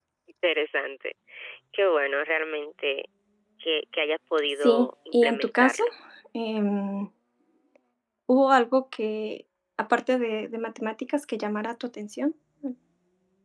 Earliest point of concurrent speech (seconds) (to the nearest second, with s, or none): 5 s